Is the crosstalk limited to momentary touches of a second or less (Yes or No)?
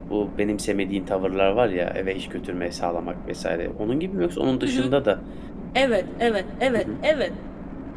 Yes